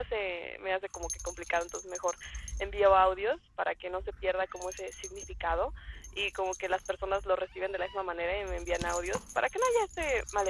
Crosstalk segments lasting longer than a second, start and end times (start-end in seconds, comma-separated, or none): none